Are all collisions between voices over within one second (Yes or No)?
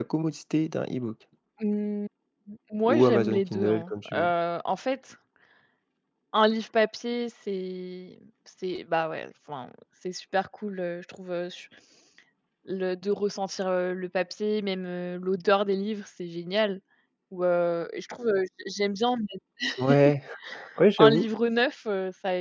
No